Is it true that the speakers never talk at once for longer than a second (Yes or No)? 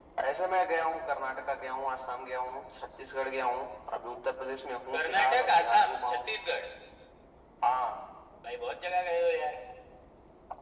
No